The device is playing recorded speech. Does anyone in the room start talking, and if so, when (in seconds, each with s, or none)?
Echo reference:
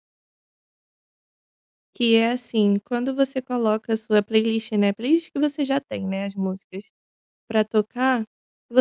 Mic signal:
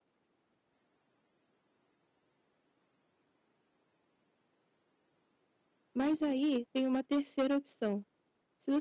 5.9 s